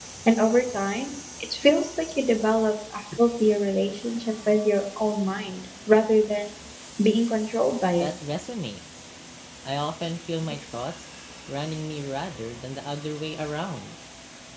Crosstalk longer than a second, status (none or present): none